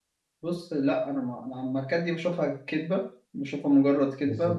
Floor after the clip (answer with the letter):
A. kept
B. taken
A